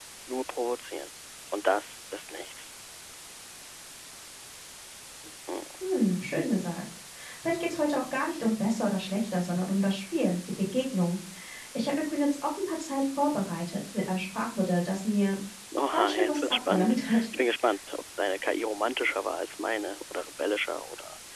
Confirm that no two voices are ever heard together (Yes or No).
No